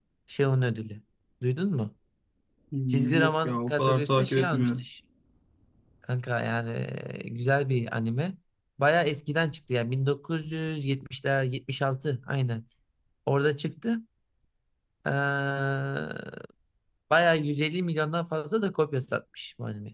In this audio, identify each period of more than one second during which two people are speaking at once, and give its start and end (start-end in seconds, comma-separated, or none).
2.9-4.8